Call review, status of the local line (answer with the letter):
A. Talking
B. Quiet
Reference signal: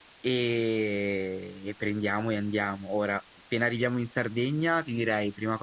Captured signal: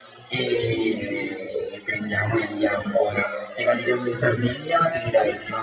B